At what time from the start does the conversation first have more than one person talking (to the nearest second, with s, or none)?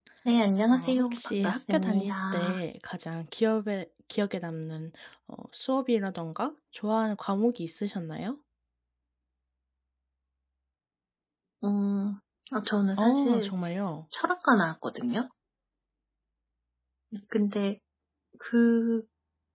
1 s